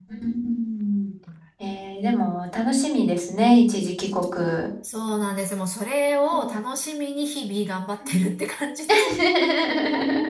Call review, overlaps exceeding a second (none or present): none